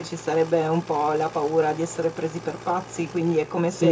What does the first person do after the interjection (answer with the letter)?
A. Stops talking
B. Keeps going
B